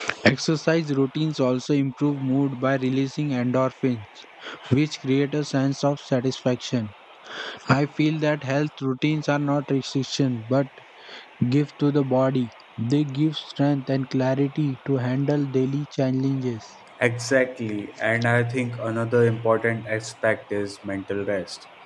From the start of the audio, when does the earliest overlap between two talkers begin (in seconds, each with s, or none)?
none